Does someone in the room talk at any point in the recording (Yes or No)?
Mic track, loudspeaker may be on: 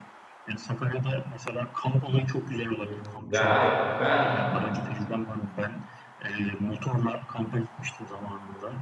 Yes